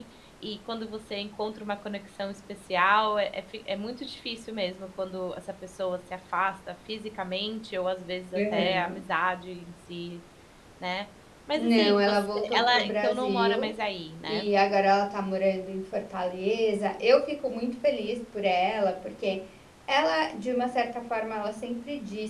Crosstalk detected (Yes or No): Yes